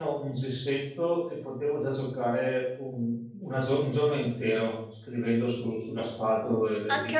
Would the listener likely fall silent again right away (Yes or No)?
No